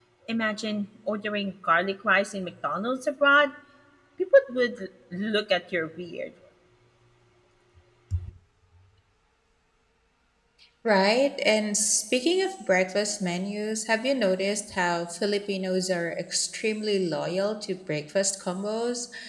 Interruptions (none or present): none